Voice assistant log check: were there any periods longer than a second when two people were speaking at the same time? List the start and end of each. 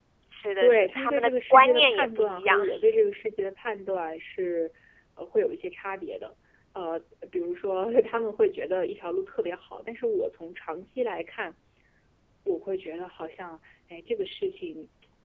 0.6-2.6

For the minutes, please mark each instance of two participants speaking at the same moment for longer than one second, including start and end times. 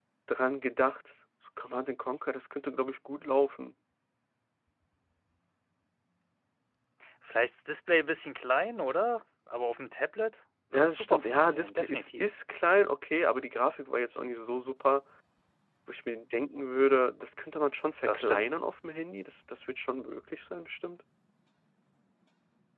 10.7-12.2

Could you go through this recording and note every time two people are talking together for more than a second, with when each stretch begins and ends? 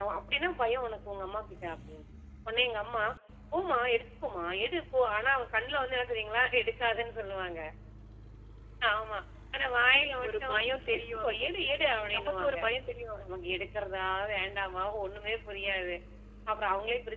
10.9-12.6

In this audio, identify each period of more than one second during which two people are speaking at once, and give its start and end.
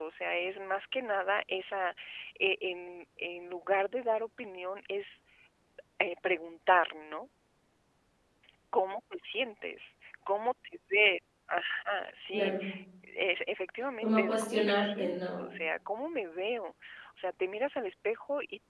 14.0-15.5

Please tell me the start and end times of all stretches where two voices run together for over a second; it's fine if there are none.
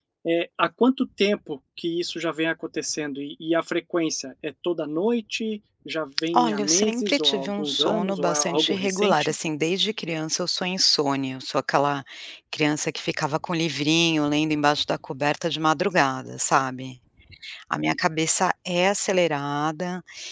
6.3-9.3

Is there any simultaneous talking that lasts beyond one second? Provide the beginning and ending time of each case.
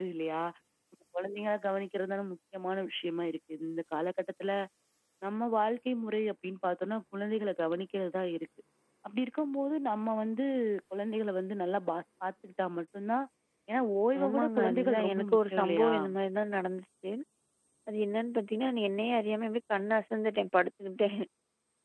14.2-15.9

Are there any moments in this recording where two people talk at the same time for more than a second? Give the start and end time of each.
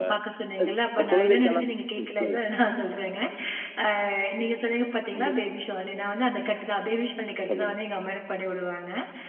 1.0-2.4

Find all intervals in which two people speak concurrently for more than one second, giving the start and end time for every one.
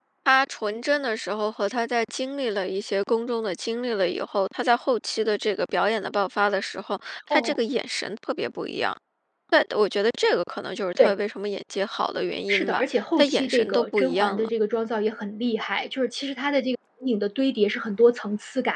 12.5-14.5

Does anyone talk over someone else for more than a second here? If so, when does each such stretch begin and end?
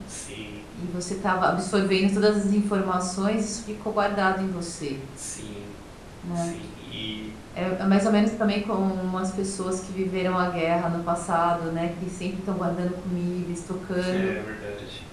none

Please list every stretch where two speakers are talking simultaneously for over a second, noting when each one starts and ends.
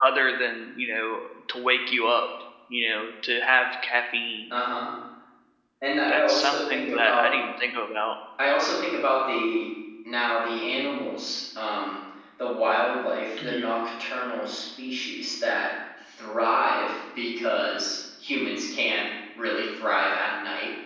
6.1-7.3

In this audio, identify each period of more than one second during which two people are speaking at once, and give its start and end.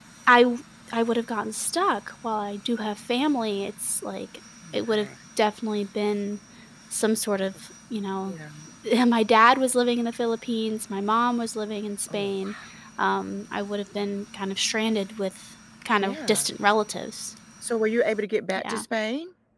none

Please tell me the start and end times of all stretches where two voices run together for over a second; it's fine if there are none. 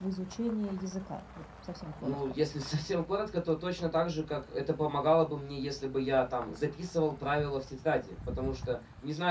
none

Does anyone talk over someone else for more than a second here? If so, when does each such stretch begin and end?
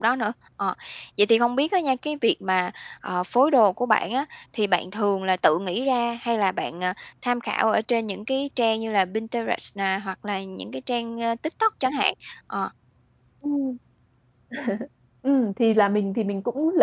none

